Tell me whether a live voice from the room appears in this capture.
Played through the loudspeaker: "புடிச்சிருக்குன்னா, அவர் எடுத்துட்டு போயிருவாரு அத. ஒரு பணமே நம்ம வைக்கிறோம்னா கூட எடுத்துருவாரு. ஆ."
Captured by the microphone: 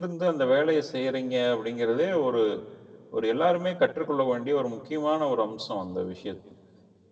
Yes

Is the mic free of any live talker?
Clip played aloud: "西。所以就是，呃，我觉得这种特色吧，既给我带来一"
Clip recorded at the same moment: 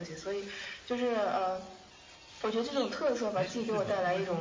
No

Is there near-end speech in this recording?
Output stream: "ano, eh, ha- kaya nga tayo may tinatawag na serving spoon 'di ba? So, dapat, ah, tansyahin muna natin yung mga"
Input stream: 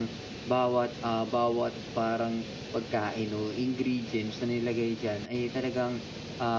Yes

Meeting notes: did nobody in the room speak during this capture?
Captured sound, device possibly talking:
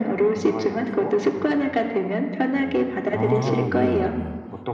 No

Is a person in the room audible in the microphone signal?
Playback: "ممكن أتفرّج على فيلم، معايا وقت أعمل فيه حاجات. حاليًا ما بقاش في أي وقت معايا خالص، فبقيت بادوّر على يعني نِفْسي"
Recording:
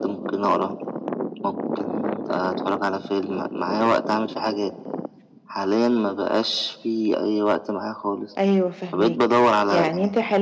Yes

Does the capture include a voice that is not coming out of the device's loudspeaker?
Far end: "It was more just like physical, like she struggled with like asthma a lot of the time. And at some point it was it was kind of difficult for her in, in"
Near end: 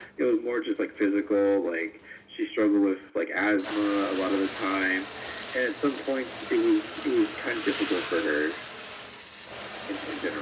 No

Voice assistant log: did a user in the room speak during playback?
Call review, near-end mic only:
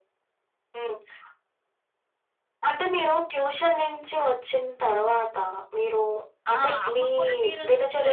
Yes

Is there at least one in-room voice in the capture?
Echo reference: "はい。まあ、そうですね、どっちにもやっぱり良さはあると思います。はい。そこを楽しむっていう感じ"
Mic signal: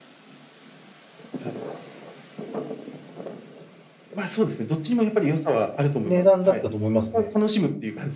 Yes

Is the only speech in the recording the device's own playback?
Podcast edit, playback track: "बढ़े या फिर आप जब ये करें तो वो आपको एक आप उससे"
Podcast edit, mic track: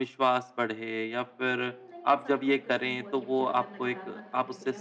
No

